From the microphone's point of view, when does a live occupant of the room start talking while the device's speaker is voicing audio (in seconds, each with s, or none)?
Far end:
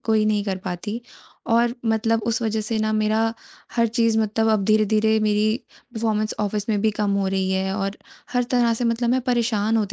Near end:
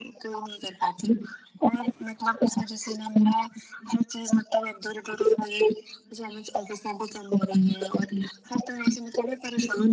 none